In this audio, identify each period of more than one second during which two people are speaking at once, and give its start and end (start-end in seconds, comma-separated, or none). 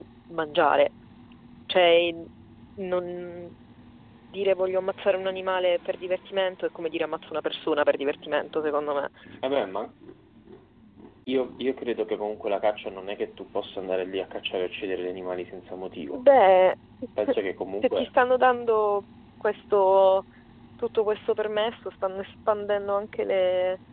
none